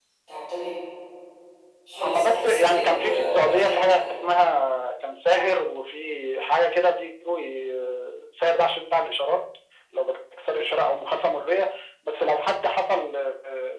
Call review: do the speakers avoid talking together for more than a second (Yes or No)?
No